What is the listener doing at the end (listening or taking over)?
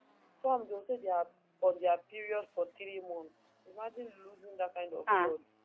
taking over